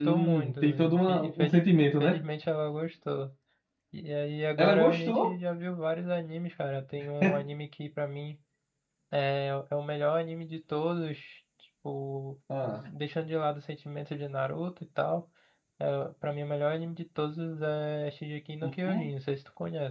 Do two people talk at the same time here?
Yes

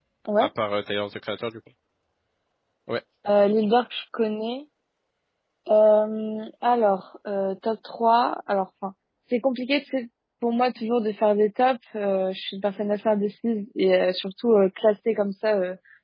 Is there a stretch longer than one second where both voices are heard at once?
No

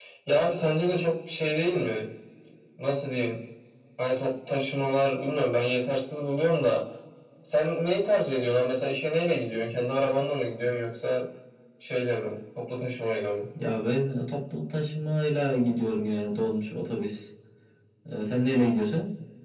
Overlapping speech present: No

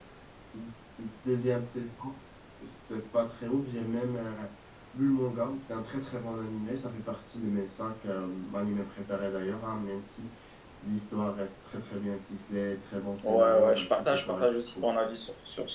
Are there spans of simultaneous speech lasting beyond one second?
Yes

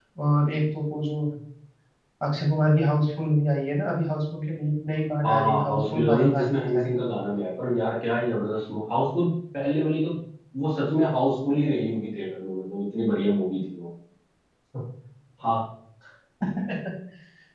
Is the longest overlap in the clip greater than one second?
Yes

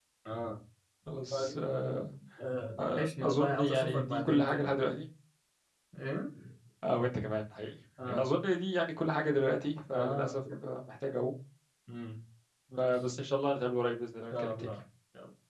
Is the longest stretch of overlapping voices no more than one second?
No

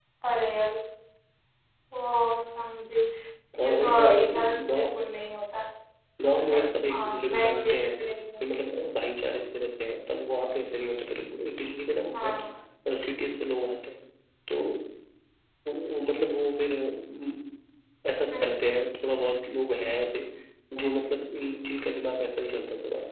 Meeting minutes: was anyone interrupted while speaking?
Yes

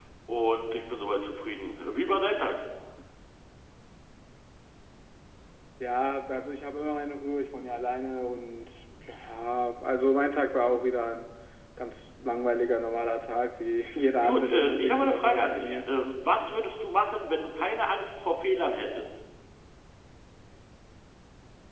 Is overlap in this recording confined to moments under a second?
No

